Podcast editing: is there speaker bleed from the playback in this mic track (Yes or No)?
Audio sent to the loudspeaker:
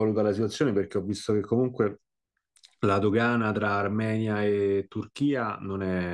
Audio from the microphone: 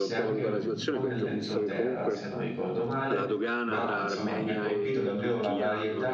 Yes